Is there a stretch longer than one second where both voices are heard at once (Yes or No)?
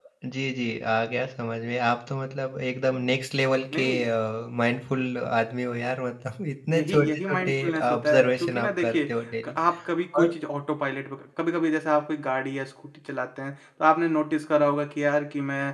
Yes